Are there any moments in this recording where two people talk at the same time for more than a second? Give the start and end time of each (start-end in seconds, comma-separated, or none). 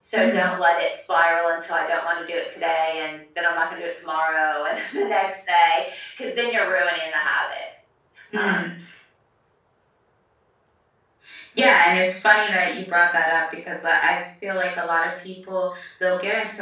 none